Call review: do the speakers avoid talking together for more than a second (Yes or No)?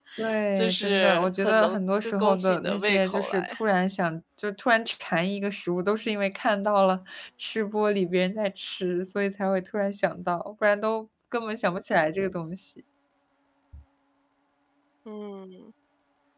No